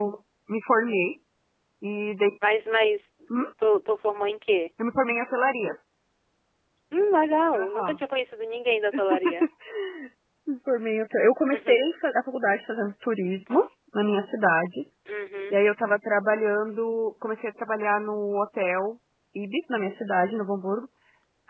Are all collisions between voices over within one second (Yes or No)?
Yes